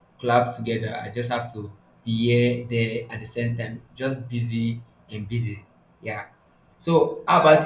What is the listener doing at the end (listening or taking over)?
listening